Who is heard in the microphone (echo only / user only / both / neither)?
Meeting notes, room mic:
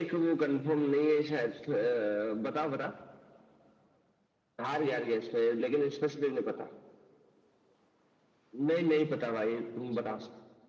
echo only